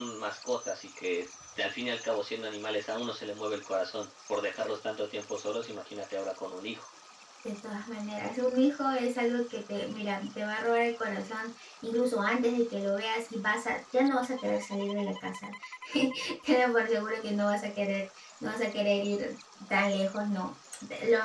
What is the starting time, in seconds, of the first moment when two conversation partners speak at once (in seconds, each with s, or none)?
none